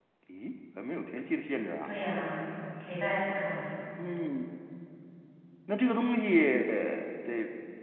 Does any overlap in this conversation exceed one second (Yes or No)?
No